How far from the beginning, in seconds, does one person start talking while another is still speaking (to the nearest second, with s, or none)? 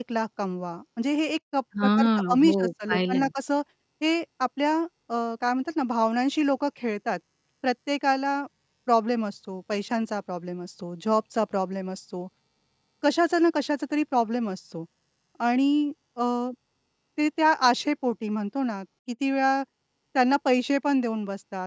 2 s